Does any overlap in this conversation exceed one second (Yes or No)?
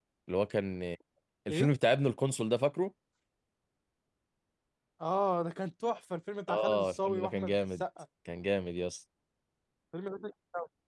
Yes